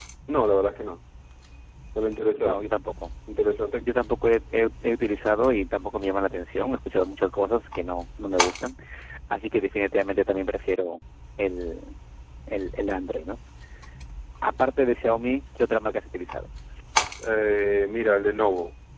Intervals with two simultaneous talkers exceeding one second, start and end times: none

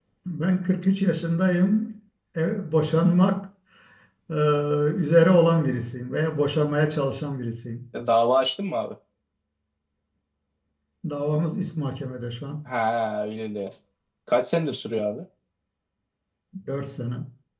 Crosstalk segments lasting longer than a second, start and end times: none

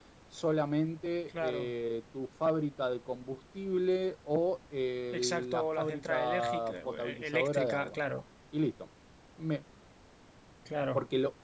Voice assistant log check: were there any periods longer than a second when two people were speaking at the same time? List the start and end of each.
5.1-8.0

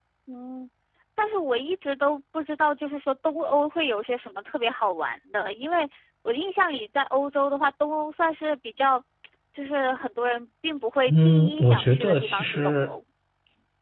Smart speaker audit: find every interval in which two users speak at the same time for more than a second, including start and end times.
11.1-12.9

